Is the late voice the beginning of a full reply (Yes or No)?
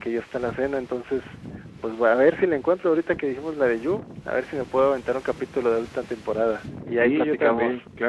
Yes